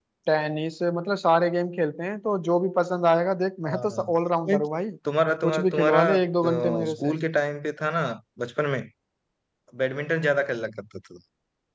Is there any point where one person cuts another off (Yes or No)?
Yes